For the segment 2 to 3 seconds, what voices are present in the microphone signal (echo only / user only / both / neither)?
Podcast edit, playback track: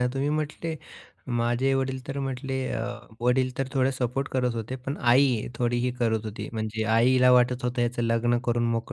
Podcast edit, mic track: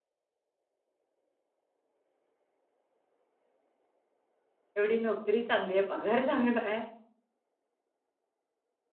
neither